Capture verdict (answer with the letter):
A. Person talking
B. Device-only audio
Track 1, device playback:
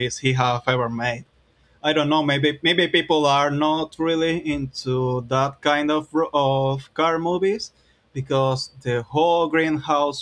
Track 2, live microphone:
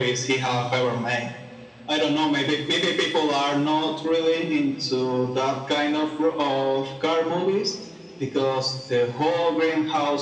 B